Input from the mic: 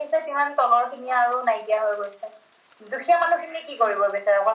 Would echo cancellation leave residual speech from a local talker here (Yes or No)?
No